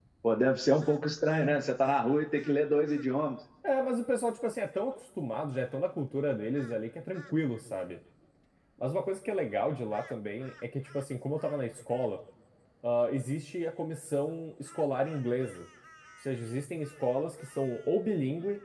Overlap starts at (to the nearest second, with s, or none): none